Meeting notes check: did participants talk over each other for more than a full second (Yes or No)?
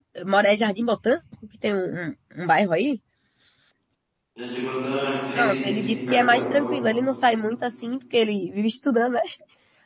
Yes